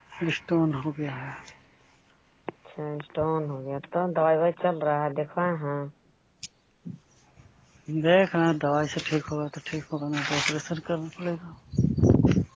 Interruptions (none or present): none